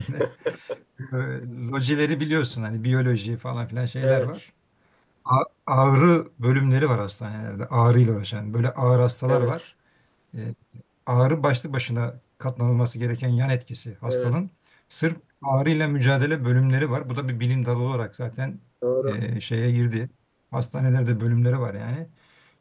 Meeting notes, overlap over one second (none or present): none